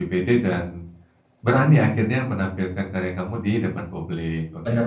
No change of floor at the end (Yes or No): No